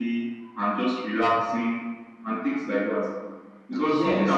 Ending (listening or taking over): taking over